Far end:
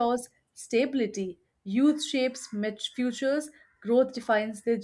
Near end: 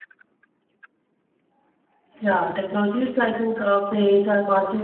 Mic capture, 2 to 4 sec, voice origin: user only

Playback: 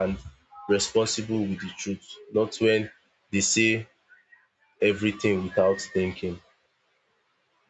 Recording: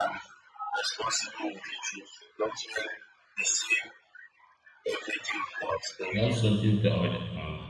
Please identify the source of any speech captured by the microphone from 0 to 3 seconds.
echo only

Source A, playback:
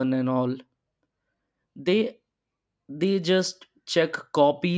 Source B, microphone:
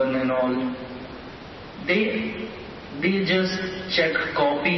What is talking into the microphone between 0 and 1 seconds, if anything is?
echo only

